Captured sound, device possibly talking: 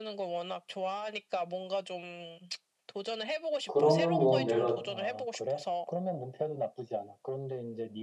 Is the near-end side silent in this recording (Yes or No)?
No